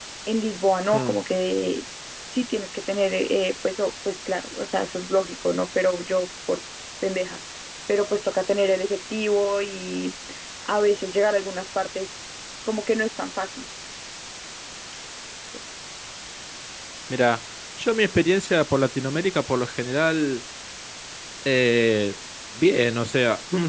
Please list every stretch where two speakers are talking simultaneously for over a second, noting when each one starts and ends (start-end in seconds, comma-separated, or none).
none